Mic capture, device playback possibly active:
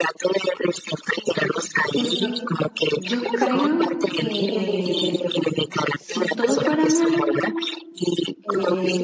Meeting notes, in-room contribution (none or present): present